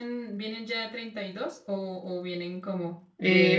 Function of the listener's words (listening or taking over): taking over